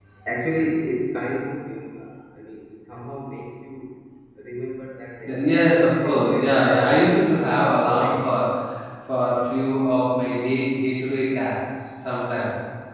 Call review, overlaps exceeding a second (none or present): present